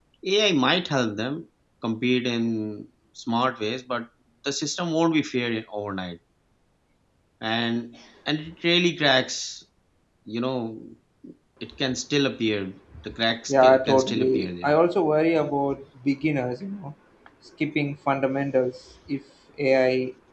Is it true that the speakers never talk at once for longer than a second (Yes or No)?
No